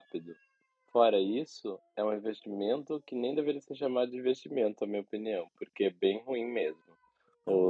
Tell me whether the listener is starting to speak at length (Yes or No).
No